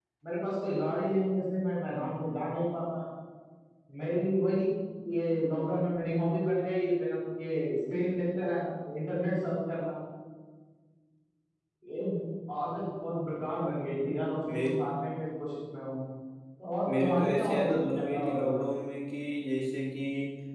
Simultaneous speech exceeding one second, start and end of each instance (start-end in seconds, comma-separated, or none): 17.0-18.6